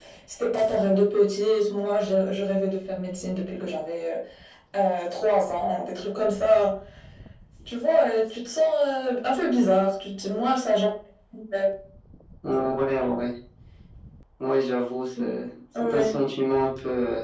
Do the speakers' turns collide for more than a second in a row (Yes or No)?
No